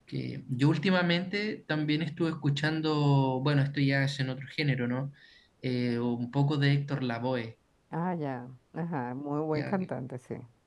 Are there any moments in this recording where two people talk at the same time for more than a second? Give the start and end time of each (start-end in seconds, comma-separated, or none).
none